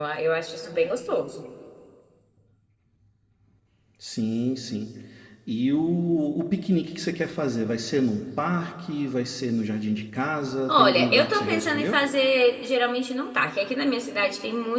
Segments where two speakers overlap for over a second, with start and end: 10.7-12.0

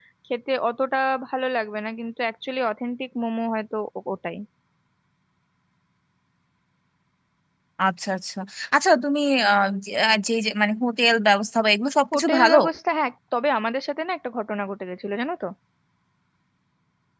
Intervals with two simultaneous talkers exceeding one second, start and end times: none

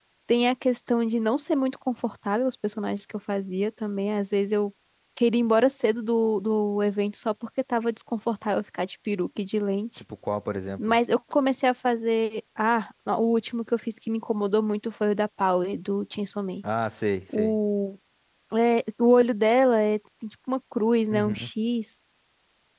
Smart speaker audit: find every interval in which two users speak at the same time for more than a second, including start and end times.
none

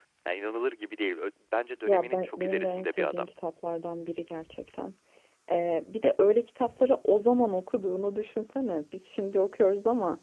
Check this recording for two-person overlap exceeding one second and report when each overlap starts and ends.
1.9-3.2

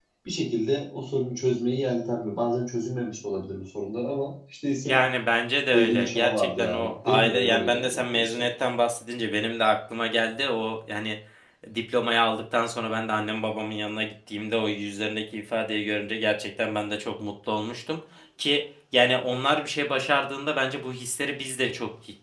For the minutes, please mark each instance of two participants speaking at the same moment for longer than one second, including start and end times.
5.7-8.4

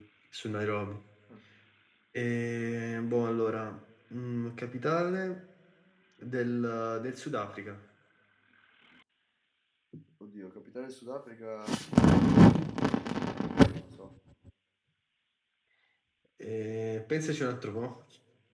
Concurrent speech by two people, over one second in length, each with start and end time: none

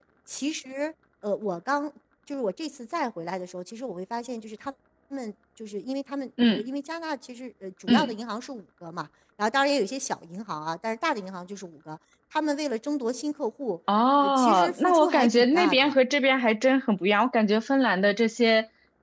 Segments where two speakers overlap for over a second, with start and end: 14.2-15.9

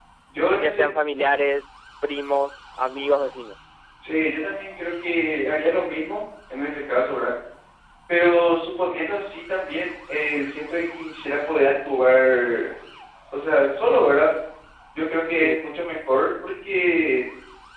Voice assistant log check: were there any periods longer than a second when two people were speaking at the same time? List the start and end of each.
none

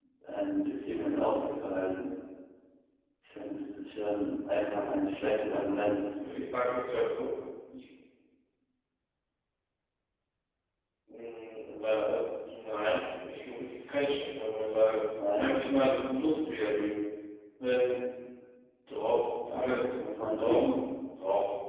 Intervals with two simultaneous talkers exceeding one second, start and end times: none

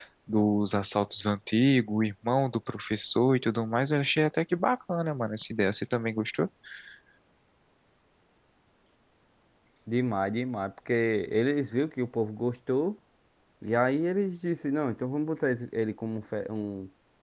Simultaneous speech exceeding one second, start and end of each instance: none

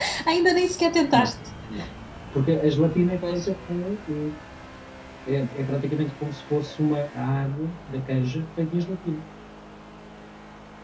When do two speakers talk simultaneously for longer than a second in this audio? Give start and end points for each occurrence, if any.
none

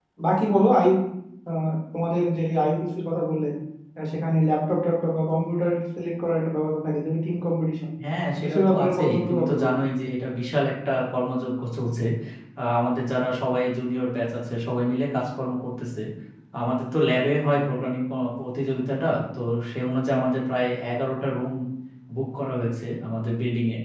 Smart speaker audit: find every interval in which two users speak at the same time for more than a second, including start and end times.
8.4-9.7

